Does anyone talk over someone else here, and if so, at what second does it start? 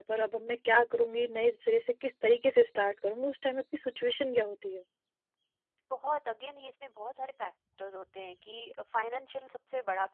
none

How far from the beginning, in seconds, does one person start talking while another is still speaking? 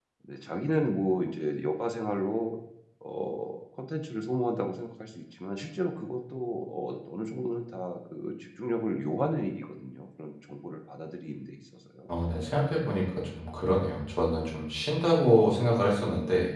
none

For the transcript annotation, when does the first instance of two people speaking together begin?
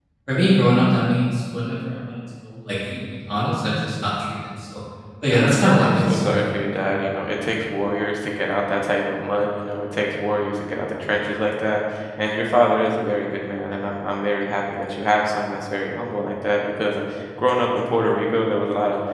5.2 s

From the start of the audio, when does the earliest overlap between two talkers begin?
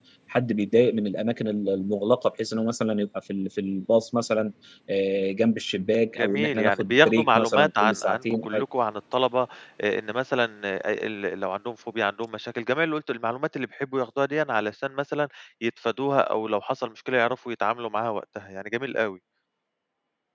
6.2 s

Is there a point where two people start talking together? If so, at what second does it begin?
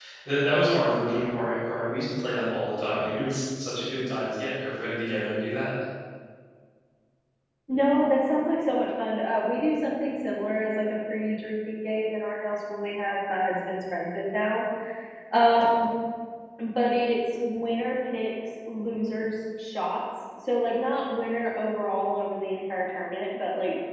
none

